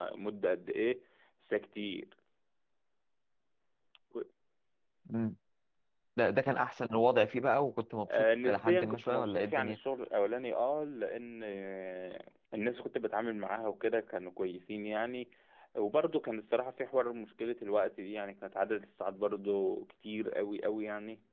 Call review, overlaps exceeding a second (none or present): present